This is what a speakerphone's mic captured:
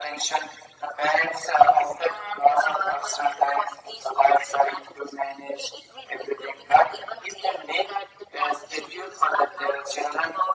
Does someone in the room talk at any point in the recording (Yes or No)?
No